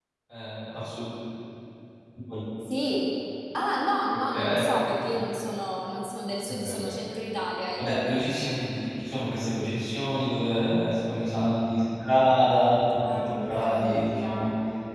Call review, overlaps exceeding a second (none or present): present